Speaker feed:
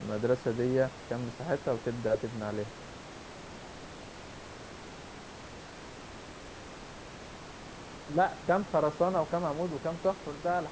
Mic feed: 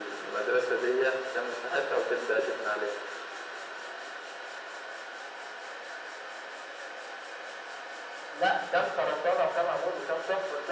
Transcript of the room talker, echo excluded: none

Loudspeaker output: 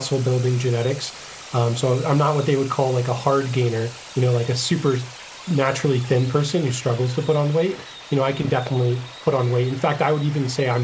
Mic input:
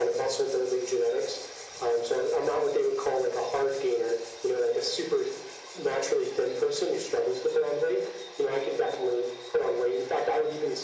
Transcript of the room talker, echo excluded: none

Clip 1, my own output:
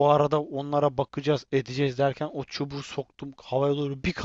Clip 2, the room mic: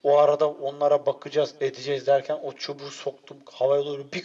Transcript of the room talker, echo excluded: none

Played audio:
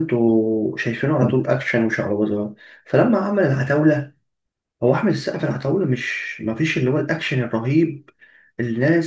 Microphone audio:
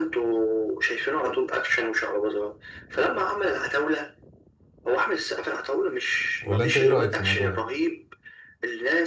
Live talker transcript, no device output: ولا انت ايه رايك في الموضوع ده

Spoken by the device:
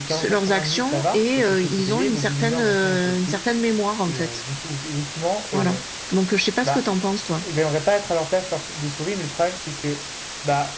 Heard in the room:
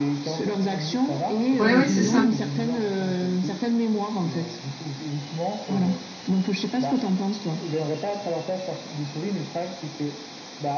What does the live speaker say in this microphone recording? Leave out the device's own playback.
Oui, oui, c'est ça.

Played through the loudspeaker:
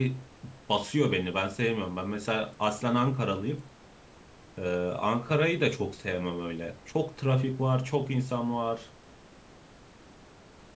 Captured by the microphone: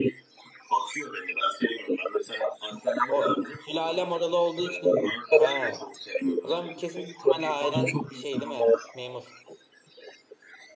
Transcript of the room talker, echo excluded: O sülalem oralı olduğu için. He. O zaman kesin büyük ihtimalle ailen şey değil mi? Memur.

